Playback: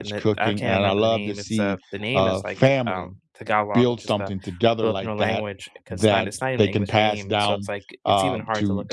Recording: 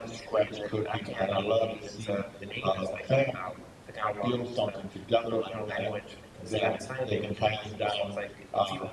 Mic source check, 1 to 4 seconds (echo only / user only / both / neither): echo only